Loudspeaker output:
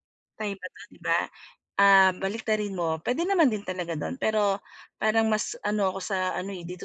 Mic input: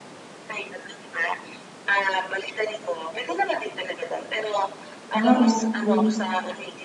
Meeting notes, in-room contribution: present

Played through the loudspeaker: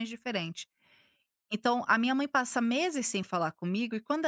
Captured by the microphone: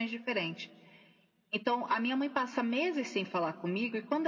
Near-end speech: none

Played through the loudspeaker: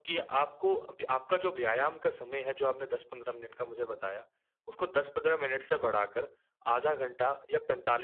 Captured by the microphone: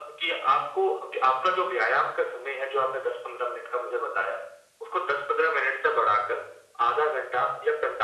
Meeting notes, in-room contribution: none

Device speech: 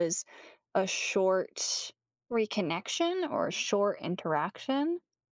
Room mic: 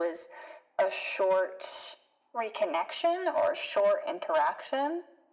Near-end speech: none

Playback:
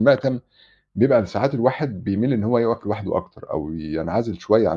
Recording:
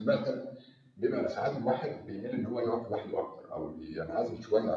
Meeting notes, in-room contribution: none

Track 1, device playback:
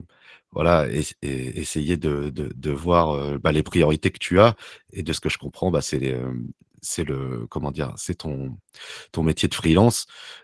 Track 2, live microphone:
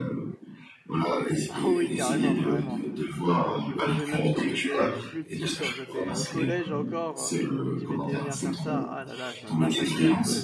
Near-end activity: present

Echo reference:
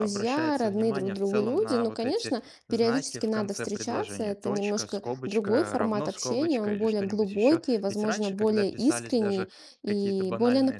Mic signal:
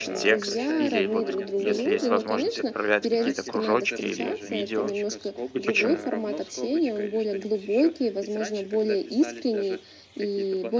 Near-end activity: present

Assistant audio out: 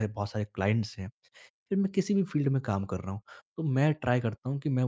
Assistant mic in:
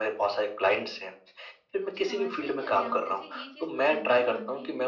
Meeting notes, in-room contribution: present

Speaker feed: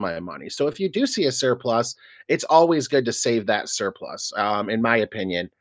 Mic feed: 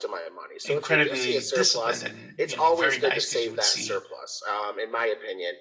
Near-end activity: present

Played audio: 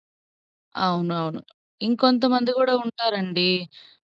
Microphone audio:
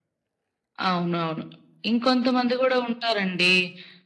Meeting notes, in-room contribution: none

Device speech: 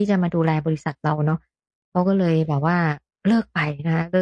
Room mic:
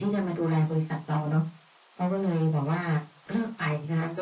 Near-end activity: none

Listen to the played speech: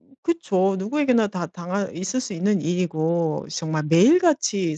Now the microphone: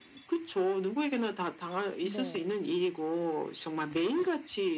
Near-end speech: present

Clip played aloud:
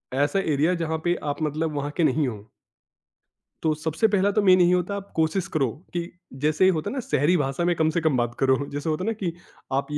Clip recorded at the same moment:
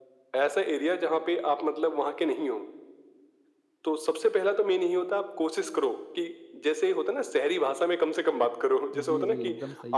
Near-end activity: present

